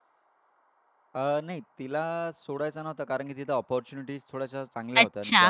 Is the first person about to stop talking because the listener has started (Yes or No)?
Yes